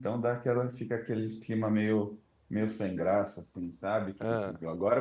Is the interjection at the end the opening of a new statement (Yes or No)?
No